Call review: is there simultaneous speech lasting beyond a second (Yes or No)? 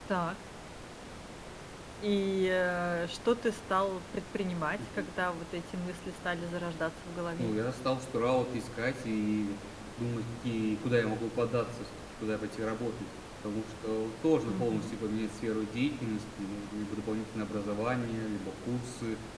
No